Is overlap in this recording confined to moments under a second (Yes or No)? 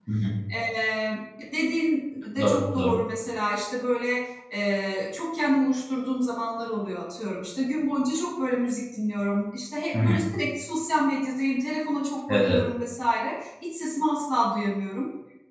Yes